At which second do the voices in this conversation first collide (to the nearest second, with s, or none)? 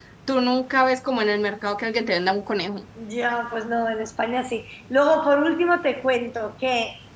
none